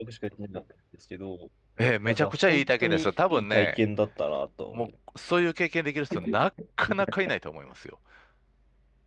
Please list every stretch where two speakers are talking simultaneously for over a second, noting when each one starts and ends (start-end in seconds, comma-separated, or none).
2.0-3.8